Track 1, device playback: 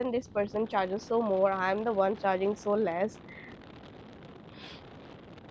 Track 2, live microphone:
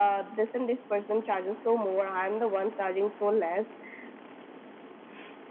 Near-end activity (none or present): none